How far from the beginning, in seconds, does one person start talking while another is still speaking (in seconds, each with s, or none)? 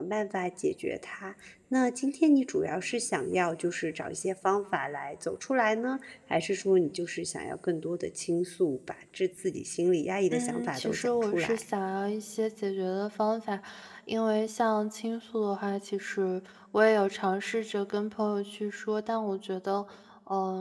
10.3 s